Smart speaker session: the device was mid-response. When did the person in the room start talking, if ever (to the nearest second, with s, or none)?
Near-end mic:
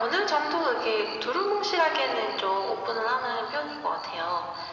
none